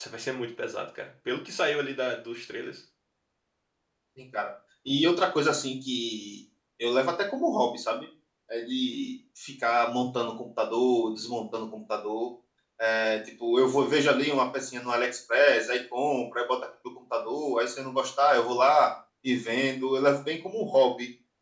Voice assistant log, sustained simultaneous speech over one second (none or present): none